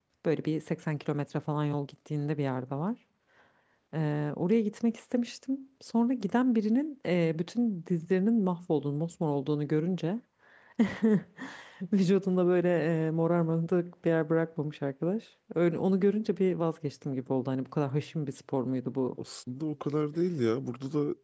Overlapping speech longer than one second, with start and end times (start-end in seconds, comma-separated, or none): none